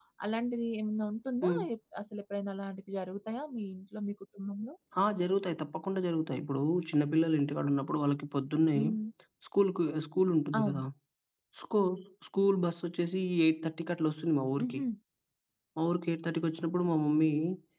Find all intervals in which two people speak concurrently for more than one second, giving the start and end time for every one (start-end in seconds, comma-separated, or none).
none